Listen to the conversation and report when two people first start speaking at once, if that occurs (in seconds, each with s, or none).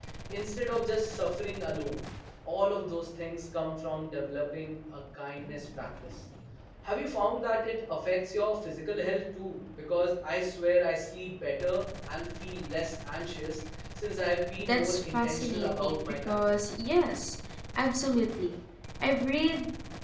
14.6 s